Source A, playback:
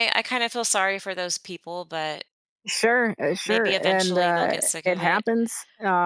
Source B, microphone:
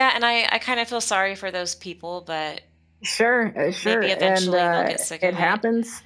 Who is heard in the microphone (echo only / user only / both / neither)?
echo only